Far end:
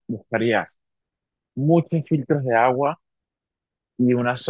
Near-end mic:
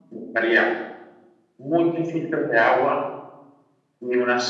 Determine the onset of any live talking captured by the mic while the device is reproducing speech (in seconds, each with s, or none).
none